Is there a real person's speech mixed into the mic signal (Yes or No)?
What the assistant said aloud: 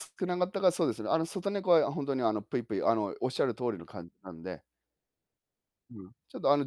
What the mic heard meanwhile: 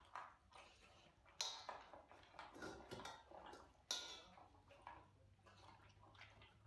No